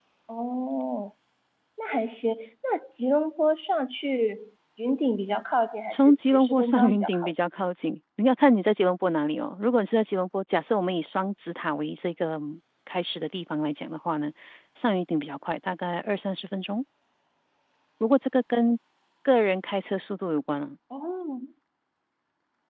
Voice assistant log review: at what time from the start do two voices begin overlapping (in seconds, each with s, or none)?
5.9 s